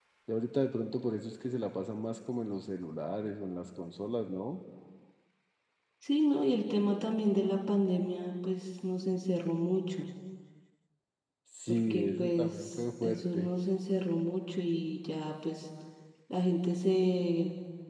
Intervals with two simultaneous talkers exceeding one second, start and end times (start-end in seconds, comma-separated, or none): 11.7-13.5